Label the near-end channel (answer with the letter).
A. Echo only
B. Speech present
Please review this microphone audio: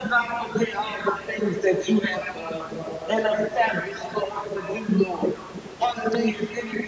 A